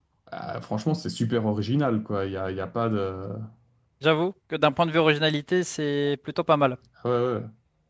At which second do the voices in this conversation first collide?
none

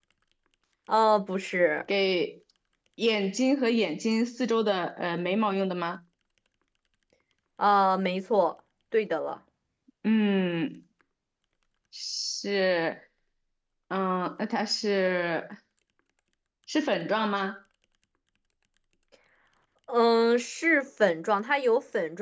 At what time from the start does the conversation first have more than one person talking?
none

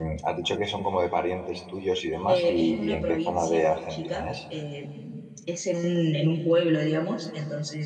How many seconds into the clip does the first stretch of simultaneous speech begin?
2 s

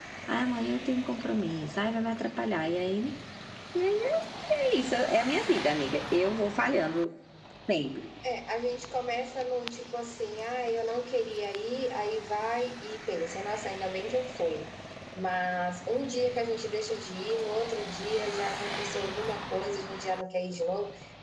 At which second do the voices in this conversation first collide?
none

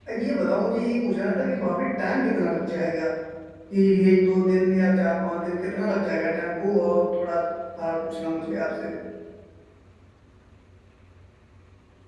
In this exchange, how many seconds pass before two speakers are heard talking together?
none

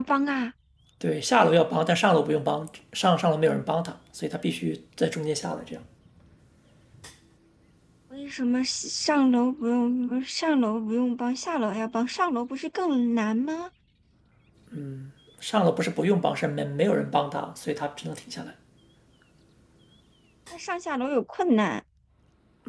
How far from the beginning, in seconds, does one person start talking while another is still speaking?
none

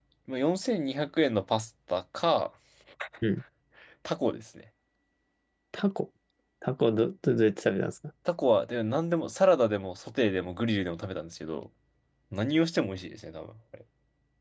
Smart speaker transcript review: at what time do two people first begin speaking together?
none

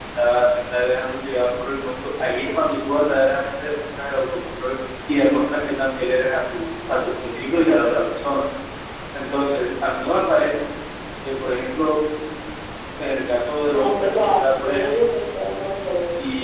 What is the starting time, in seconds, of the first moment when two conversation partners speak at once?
14 s

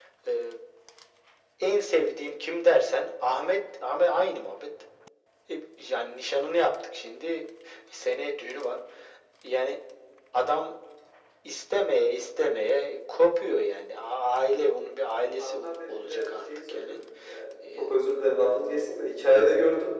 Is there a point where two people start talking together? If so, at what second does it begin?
15 s

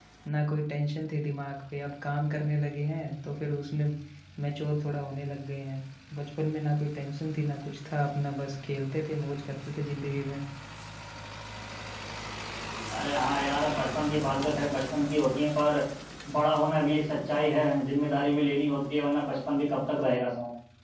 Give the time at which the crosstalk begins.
none

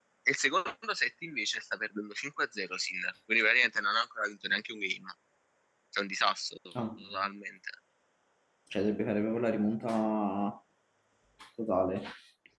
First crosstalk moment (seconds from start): none

